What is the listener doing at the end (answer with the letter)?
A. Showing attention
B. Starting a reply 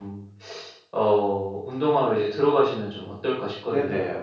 B